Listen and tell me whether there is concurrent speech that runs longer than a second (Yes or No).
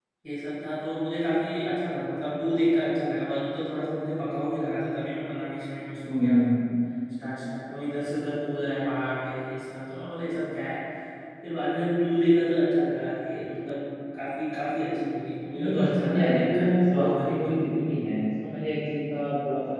Yes